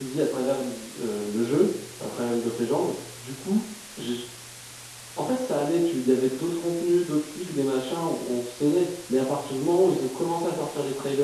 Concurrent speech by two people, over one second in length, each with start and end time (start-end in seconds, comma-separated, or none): none